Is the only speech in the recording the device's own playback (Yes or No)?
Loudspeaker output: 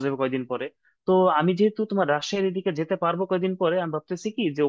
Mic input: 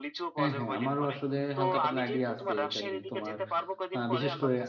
No